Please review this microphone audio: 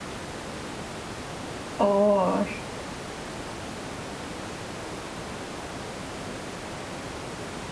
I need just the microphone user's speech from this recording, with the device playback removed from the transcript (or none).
ও